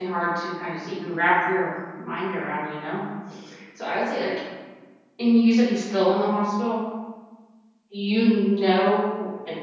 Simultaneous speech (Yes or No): No